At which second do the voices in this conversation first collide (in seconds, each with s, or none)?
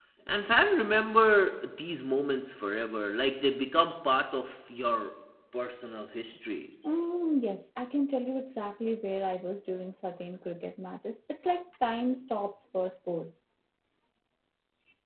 none